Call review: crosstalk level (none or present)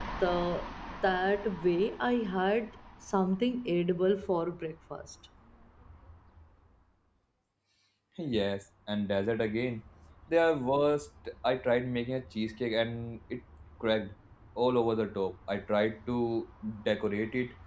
none